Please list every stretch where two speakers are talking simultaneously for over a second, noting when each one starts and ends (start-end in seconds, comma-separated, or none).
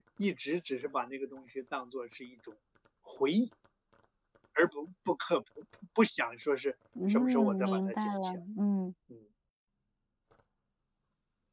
7.1-8.4